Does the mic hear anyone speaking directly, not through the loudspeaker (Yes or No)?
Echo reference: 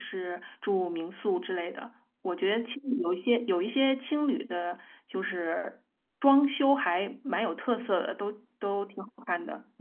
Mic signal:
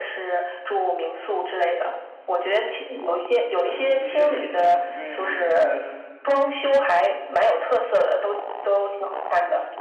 Yes